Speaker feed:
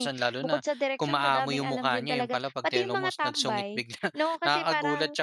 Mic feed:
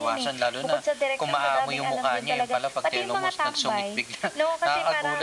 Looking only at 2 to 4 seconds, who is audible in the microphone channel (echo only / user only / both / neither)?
echo only